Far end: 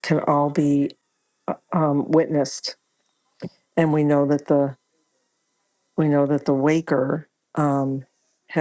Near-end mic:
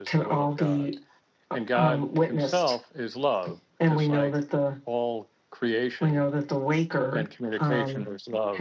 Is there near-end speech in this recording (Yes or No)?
Yes